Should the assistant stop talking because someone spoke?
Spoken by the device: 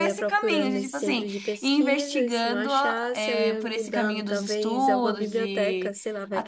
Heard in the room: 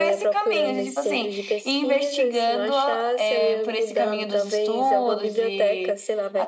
No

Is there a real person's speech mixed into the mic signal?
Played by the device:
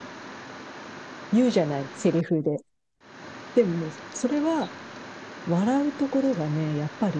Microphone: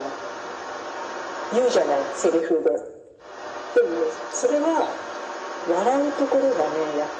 No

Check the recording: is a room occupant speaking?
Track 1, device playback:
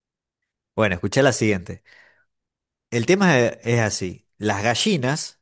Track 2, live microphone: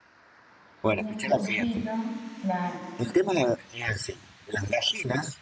Yes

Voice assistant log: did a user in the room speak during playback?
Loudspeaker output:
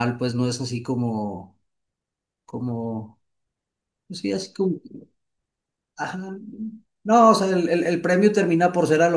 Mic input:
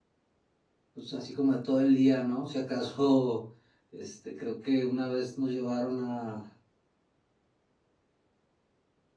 Yes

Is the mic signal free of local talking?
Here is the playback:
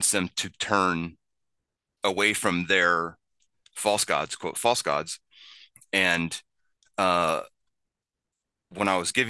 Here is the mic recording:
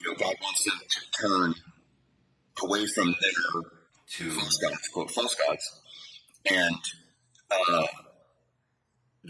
No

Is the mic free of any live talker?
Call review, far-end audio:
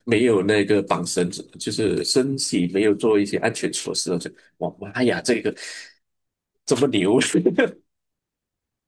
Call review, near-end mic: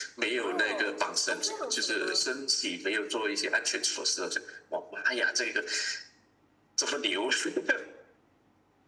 No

